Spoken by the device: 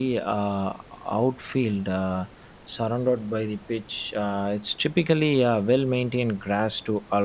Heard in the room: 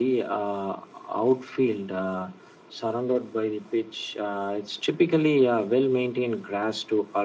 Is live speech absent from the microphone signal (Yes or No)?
Yes